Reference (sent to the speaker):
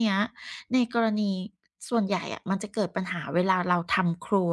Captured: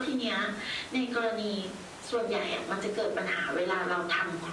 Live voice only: none

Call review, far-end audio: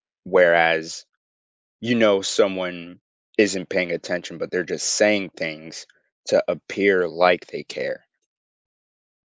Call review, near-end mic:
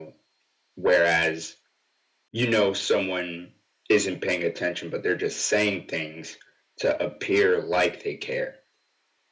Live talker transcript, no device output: none

